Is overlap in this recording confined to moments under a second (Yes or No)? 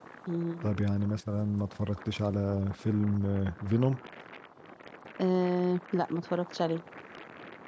Yes